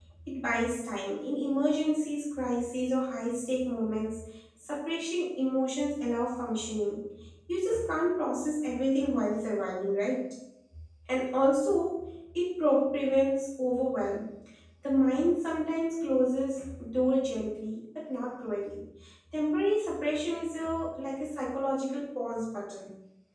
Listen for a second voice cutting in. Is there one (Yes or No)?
No